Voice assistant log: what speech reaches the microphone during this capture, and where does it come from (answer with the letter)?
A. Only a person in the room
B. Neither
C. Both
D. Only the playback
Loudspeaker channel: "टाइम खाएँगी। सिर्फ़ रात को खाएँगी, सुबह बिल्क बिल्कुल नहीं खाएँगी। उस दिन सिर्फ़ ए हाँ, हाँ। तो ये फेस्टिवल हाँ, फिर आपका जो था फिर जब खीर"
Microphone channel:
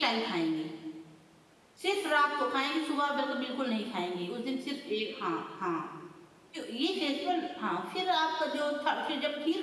D